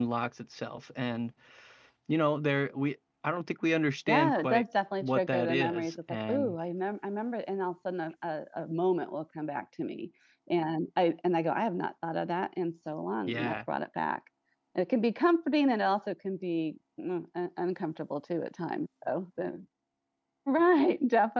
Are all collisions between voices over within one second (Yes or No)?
No